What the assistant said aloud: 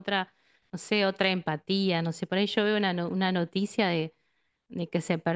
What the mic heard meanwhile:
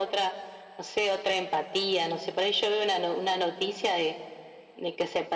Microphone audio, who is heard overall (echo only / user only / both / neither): echo only